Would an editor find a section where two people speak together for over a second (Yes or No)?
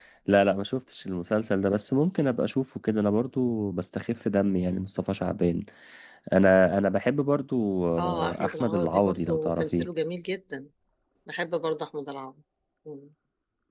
Yes